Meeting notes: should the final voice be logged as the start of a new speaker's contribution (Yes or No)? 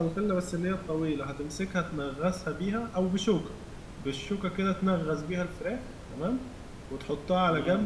No